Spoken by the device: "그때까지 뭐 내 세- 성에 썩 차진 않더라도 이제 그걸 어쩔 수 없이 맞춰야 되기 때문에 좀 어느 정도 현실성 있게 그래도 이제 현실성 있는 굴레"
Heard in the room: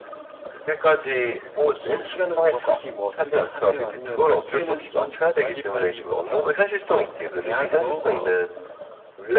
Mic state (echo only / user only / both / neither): both